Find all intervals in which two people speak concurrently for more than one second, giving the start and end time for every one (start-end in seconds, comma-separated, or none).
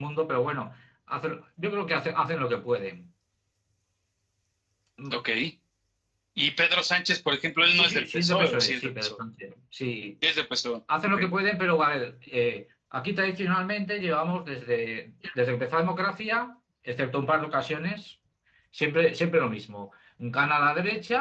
7.8-9.1